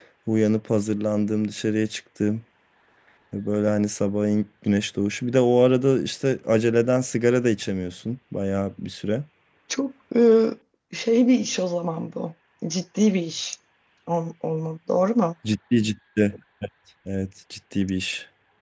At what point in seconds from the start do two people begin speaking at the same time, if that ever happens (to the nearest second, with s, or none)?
none